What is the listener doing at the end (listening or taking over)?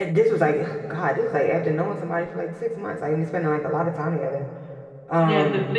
taking over